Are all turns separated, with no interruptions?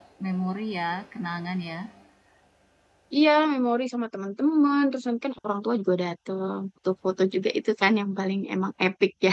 Yes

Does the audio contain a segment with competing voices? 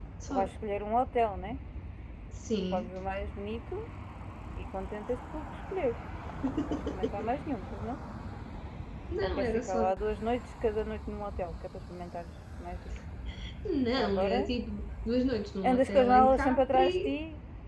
Yes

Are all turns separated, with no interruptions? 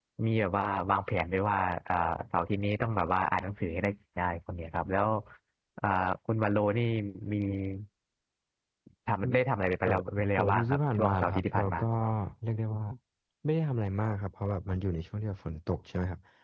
No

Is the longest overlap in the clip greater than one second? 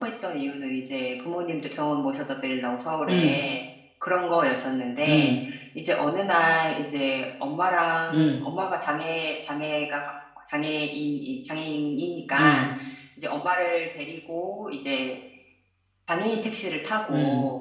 No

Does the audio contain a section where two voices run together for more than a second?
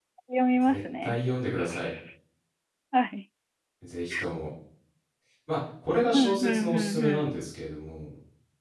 Yes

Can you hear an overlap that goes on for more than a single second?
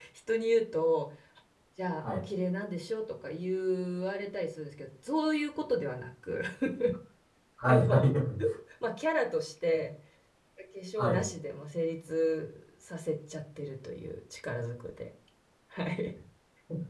No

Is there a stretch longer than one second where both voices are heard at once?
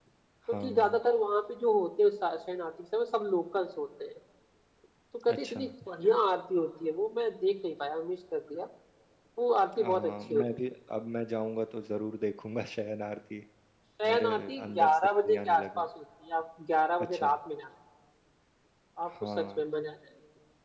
Yes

